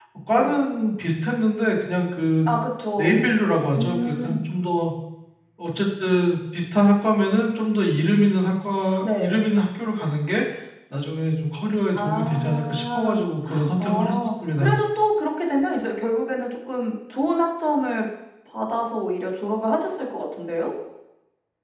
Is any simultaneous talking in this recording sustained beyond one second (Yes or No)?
Yes